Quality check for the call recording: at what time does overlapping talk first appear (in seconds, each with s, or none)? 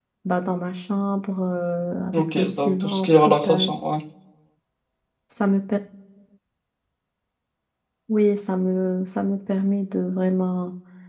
2.1 s